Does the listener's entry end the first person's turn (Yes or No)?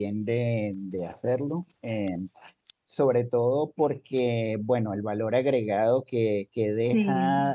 No